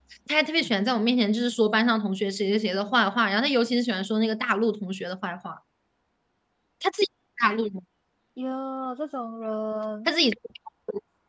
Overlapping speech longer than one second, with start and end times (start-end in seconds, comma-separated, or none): none